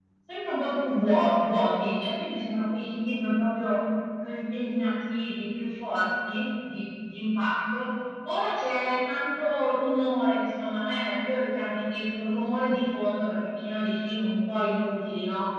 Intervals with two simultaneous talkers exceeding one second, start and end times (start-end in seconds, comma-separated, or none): none